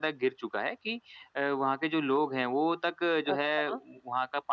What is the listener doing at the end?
listening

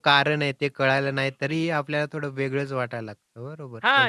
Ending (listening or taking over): taking over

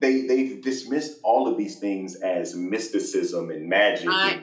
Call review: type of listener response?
listening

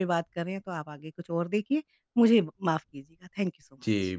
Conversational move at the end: taking over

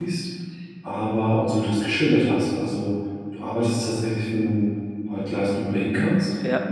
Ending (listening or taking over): listening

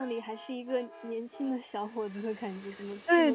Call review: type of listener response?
taking over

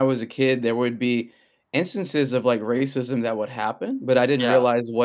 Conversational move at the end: listening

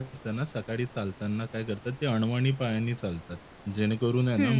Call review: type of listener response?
listening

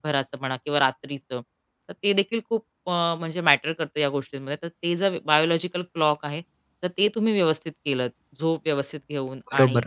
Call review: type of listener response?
taking over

